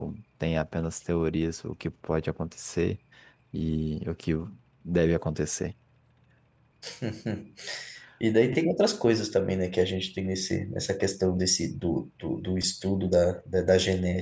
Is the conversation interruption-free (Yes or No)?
Yes